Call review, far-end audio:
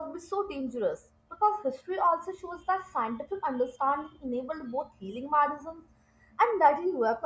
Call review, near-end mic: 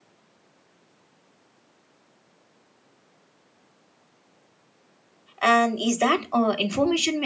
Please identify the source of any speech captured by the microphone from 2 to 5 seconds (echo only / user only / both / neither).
neither